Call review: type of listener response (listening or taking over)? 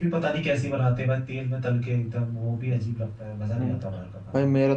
taking over